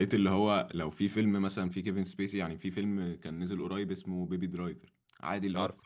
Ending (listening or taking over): listening